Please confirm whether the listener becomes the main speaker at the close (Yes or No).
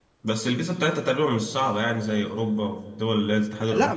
Yes